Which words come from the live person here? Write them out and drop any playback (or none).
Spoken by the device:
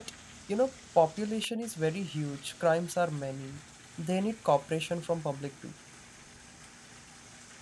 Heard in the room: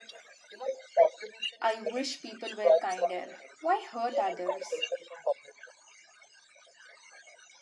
I wish people were kinder. Why hurt others?